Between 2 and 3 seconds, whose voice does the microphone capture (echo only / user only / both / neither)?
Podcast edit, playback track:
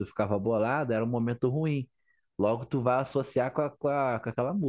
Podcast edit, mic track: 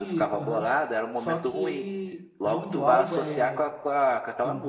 both